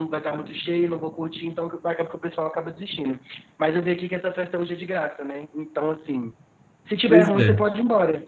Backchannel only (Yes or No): Yes